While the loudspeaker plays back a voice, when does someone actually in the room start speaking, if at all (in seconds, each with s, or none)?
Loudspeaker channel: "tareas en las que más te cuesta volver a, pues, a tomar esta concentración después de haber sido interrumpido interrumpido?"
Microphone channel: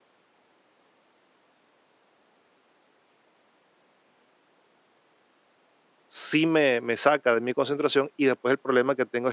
6.1 s